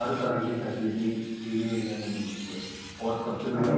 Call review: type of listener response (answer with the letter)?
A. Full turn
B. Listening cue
A